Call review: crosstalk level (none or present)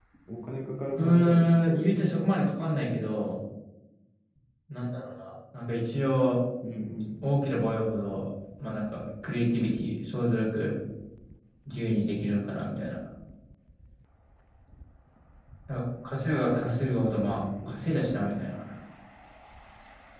present